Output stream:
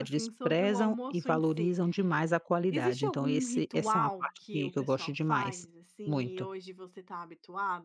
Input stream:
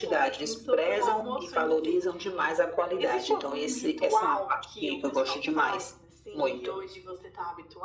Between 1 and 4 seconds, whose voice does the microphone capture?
echo only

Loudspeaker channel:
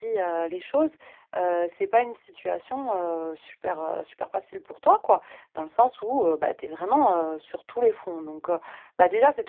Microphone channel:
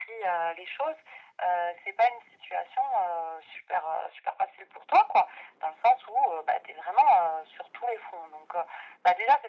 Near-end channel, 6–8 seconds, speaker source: echo only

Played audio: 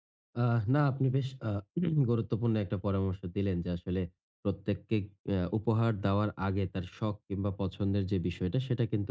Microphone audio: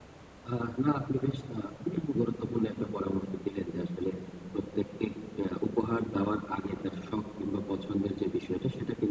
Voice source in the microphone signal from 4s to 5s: echo only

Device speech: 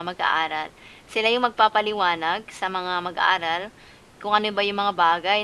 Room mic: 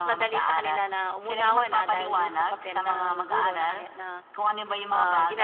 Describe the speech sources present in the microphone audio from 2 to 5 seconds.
both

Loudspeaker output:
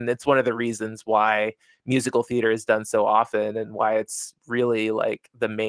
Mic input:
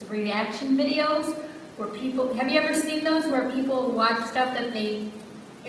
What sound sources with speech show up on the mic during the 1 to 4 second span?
user only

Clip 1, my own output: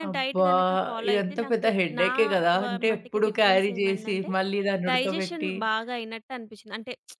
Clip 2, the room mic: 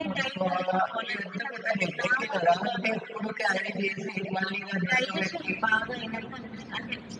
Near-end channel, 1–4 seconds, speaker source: echo only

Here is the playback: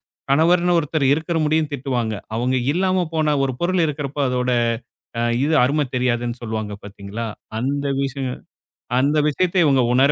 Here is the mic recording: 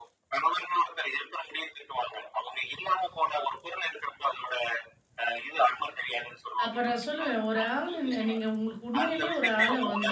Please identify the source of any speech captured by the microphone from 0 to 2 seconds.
echo only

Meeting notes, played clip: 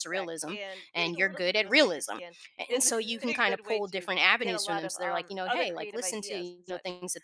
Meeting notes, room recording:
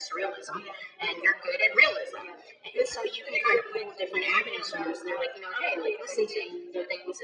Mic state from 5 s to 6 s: echo only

